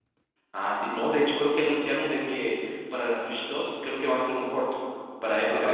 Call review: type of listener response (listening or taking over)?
taking over